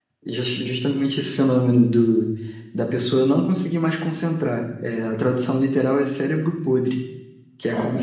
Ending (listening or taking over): listening